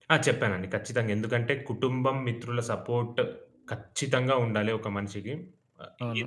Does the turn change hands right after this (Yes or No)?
Yes